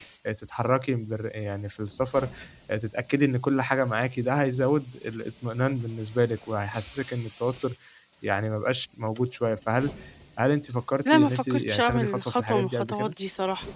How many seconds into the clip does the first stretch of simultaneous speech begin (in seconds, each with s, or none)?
11.1 s